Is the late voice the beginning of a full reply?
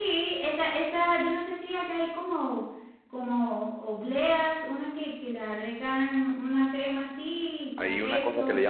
Yes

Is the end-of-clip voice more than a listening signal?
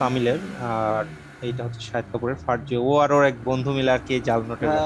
Yes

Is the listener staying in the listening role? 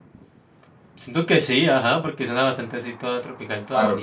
No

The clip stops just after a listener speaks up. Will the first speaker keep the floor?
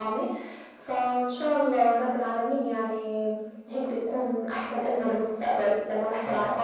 Yes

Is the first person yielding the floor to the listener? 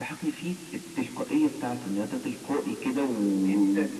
No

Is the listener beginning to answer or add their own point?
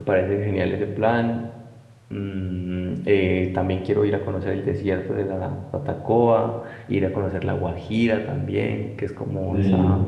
No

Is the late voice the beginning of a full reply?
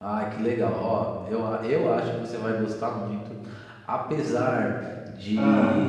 No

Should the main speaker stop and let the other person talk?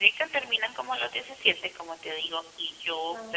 No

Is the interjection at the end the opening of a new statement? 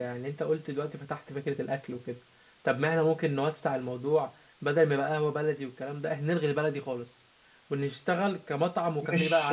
Yes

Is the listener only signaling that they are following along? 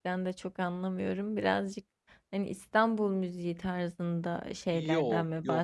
No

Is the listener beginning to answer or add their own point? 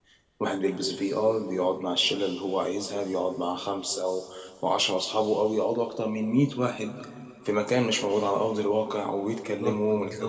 Yes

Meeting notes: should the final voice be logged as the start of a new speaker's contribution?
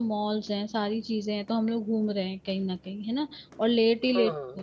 No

